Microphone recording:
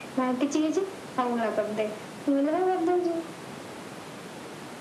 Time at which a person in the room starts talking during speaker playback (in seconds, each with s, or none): none